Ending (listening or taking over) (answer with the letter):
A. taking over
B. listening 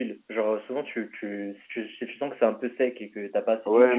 A